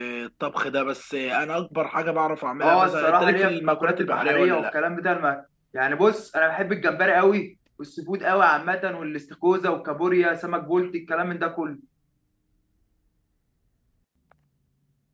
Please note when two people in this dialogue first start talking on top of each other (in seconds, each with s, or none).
2.6 s